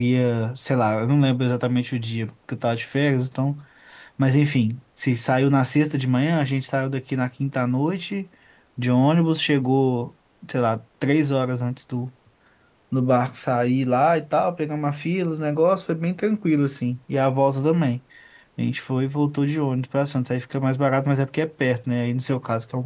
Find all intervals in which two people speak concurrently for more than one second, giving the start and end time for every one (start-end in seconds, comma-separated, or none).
none